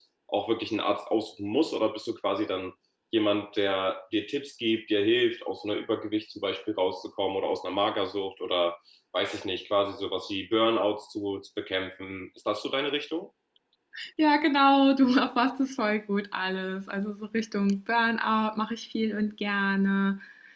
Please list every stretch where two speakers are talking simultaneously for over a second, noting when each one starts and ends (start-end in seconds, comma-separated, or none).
none